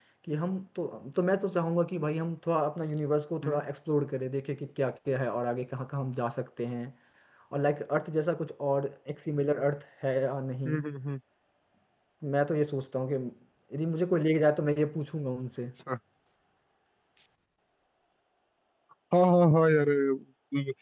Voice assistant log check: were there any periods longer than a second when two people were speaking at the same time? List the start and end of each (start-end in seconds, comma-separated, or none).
none